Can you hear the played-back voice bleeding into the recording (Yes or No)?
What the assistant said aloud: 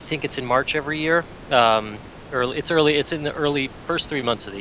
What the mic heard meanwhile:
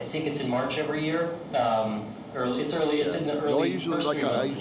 Yes